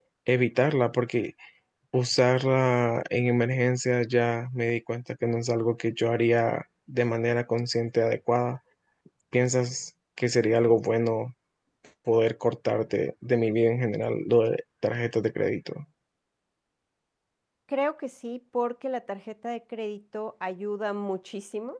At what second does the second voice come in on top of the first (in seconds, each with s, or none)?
none